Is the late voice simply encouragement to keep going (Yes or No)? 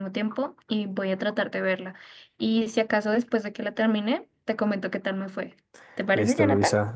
No